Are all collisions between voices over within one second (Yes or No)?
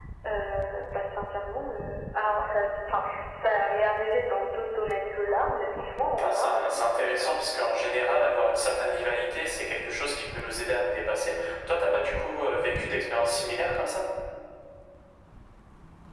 No